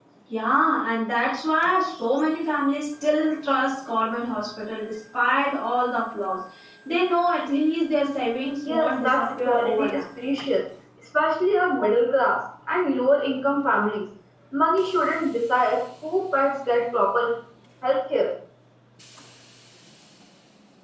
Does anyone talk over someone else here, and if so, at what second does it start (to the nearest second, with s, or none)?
9 s